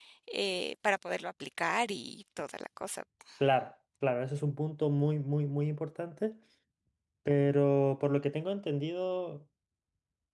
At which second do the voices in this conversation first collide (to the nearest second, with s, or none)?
none